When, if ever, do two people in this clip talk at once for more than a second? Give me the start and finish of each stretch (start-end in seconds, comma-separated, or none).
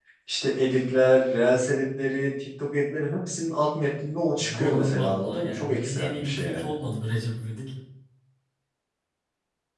4.6-6.7